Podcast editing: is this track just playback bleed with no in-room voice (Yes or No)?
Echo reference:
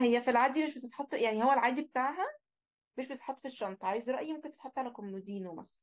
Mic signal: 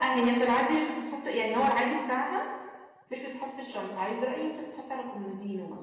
Yes